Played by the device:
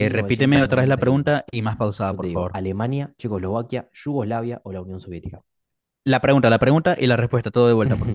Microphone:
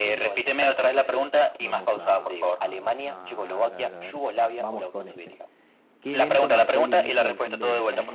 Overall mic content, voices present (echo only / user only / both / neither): both